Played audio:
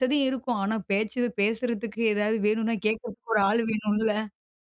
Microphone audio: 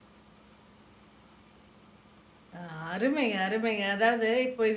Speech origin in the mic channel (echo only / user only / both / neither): user only